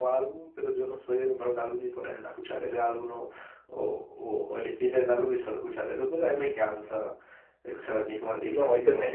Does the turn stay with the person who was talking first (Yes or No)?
No